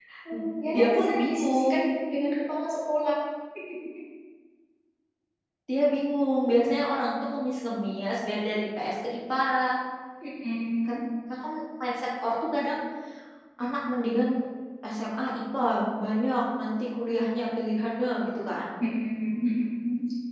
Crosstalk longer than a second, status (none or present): present